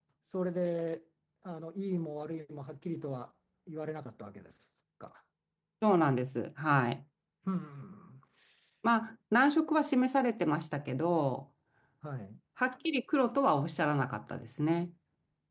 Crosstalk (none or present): none